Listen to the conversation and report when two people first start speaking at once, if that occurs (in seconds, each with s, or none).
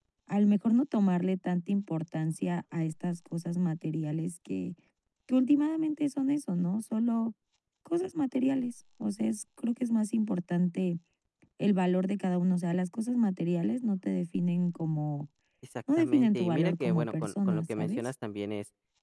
16.0 s